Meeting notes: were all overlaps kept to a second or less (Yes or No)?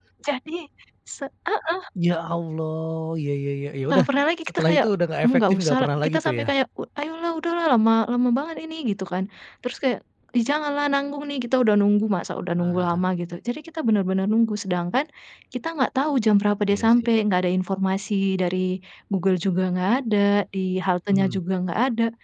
No